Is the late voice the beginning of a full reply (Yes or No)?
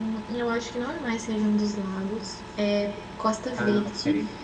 No